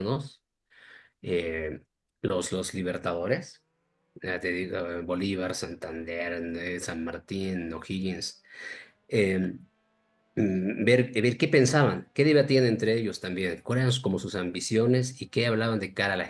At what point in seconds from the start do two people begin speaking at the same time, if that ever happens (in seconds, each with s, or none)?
none